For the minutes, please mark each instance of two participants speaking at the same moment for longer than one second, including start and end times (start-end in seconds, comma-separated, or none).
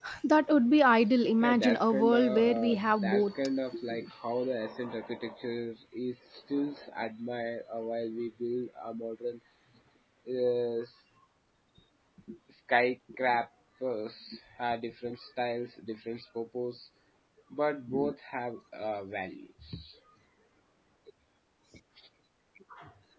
1.4-3.3